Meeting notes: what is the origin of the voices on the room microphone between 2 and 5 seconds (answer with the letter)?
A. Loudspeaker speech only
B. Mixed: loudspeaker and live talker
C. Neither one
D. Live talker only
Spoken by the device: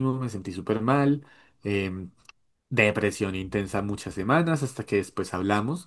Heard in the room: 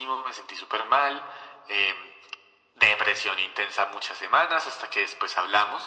A